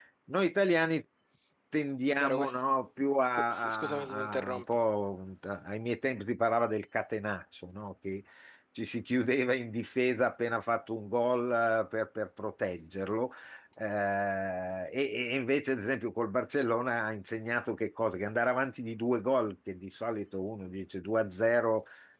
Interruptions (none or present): present